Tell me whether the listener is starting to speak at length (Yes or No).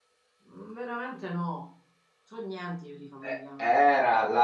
Yes